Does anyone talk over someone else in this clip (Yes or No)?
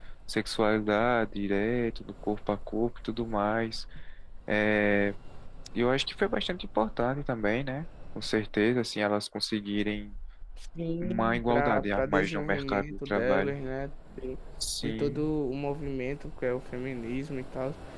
Yes